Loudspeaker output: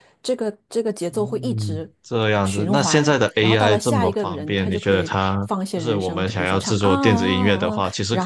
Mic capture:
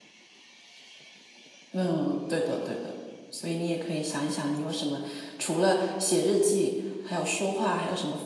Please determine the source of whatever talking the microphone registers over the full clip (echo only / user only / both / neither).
user only